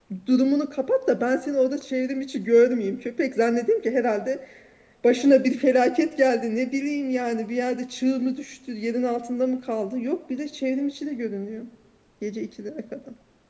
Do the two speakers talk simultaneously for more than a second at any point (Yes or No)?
No